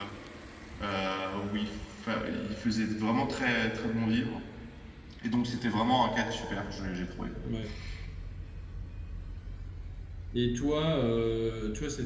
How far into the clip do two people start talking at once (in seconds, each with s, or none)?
none